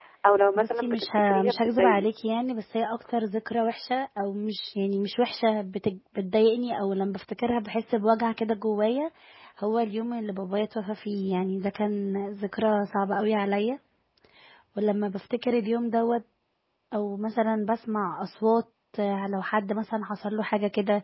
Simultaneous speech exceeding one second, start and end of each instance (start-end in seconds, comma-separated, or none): 0.6-2.1